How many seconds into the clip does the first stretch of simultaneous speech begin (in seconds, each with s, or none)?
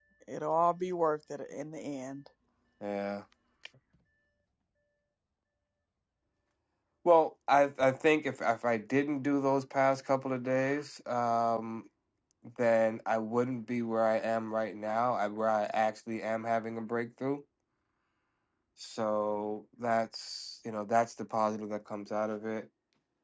none